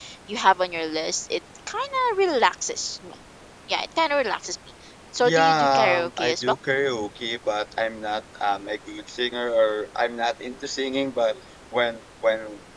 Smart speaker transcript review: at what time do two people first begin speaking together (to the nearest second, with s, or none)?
5 s